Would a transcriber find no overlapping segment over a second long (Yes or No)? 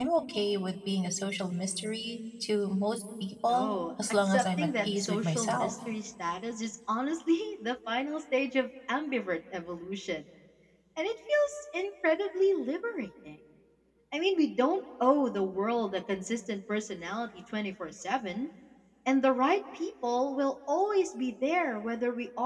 No